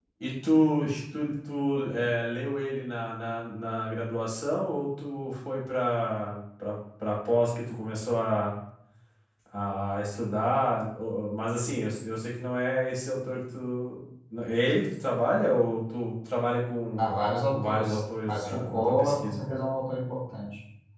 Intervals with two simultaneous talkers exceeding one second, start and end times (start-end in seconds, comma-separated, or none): 17.5-19.4